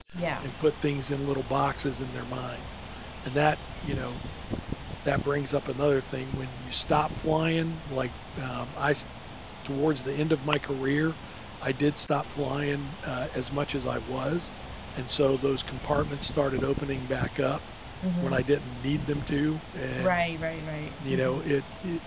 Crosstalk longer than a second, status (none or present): none